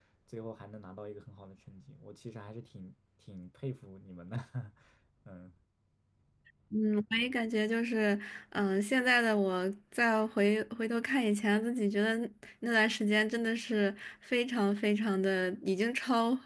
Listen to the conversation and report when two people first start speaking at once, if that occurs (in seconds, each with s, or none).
none